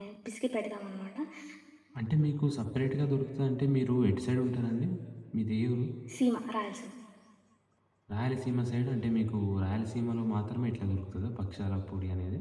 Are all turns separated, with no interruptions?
Yes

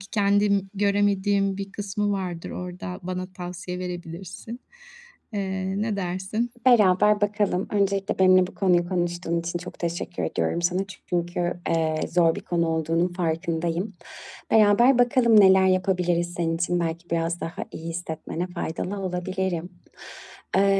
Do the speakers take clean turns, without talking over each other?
Yes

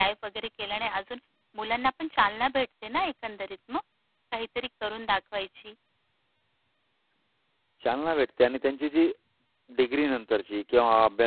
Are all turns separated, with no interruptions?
Yes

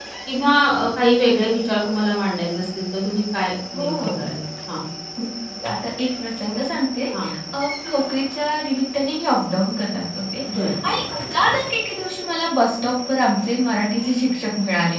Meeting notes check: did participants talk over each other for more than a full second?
No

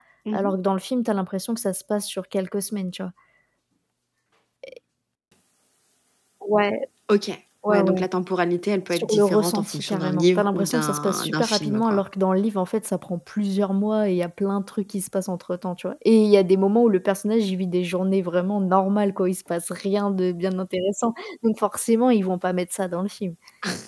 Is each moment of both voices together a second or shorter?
No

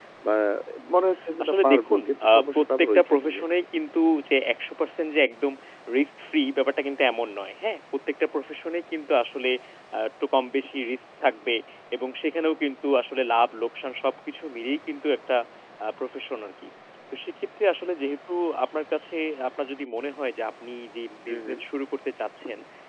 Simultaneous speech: Yes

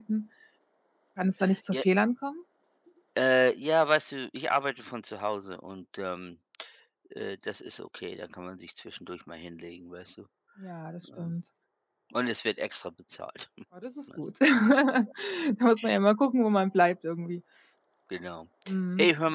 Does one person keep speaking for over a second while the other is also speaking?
No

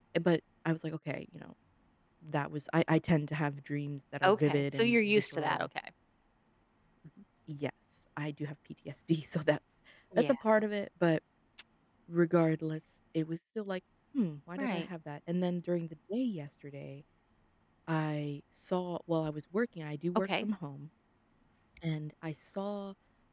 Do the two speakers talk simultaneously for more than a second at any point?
Yes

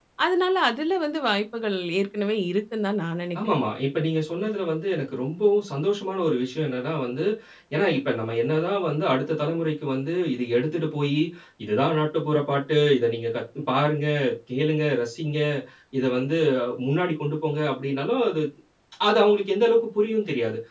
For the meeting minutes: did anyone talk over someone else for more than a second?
No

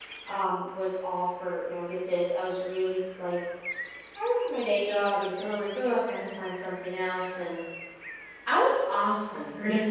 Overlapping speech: No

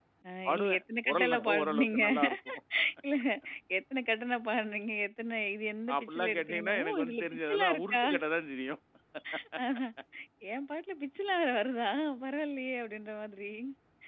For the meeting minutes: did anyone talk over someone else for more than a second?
Yes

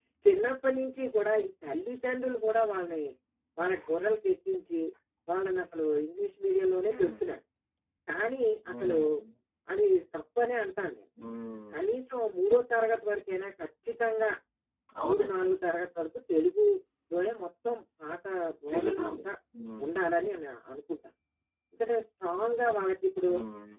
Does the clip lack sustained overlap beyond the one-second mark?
Yes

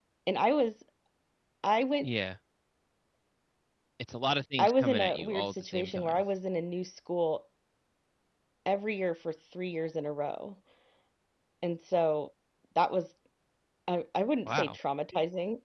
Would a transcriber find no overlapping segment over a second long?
No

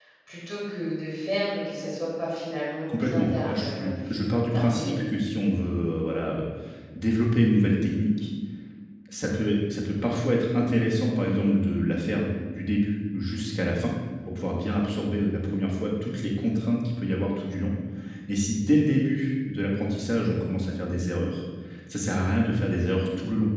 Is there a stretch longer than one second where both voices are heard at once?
Yes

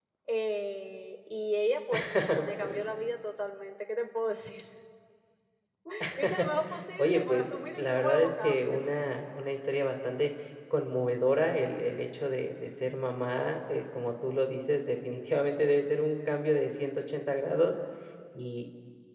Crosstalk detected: Yes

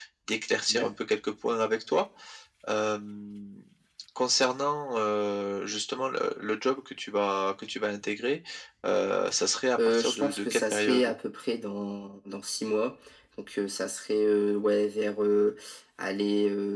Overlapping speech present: Yes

